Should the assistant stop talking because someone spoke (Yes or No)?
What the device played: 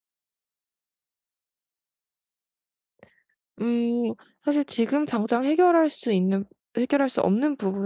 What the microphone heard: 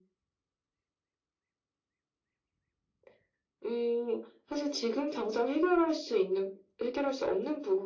No